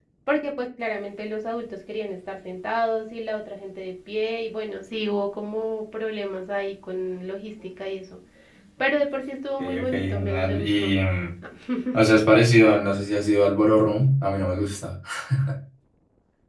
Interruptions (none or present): present